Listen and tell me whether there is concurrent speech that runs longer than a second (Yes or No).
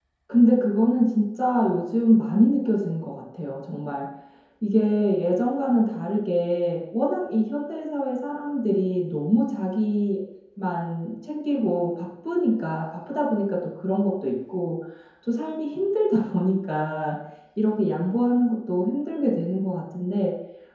No